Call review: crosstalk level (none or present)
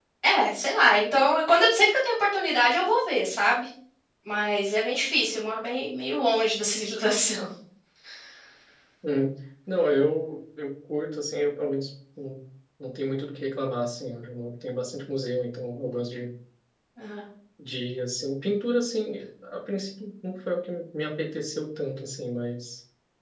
none